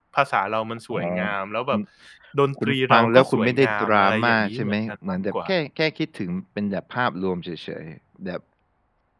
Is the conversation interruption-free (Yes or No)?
No